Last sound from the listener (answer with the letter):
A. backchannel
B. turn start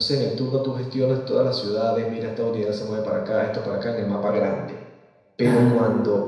A